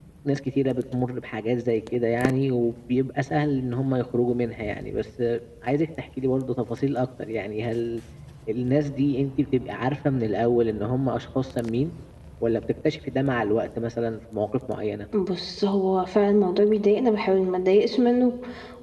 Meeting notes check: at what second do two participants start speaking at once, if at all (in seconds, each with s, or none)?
none